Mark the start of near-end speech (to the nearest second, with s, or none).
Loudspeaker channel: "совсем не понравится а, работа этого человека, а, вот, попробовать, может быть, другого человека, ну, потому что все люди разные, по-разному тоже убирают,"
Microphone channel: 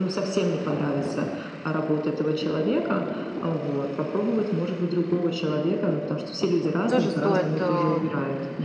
7 s